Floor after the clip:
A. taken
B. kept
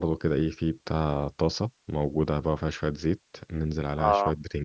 B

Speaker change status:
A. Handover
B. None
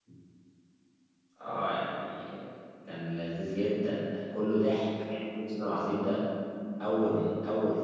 B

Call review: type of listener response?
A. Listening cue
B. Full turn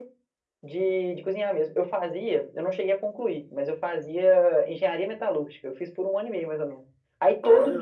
A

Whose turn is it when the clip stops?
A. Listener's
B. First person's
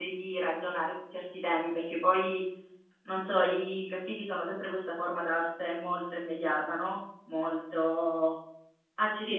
B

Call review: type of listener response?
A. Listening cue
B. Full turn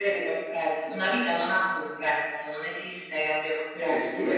B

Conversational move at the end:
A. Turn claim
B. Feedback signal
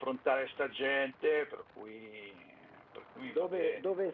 A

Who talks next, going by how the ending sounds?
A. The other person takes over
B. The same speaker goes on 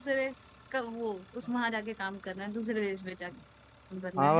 A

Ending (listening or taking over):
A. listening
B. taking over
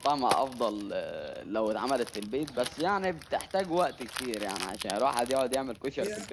B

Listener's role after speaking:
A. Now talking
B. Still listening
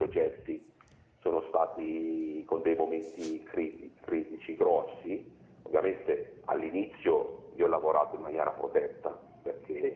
A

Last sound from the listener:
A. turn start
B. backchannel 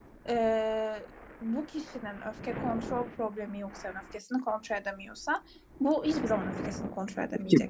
A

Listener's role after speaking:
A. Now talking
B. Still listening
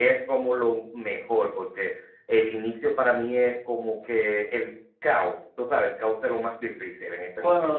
A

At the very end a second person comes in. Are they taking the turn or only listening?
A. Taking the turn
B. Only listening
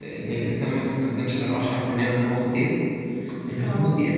B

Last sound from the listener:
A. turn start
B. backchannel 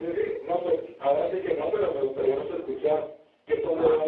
A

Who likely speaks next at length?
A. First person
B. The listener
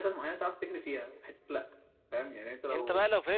B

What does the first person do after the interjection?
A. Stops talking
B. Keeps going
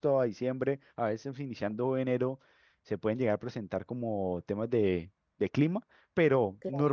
B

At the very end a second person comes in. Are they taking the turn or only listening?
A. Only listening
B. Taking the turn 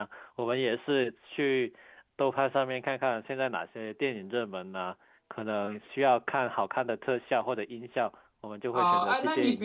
B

